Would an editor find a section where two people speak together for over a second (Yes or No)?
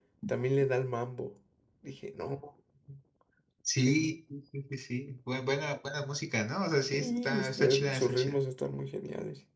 Yes